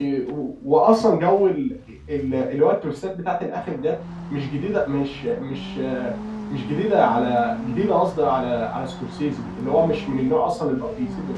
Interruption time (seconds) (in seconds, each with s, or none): none